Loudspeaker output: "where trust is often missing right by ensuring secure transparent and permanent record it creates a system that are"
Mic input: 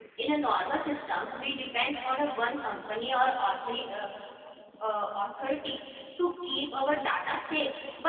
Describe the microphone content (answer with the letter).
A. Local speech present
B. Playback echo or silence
A